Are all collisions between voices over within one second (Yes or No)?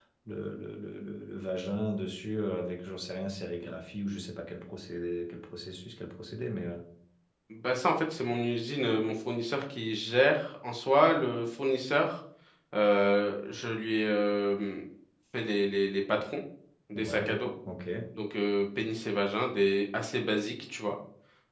Yes